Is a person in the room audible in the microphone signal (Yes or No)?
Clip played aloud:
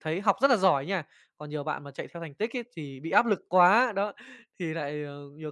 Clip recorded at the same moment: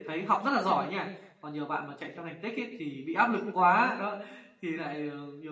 No